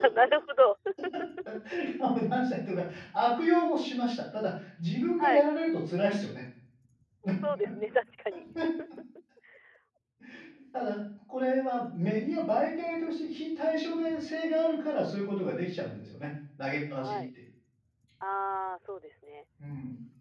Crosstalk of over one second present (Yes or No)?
No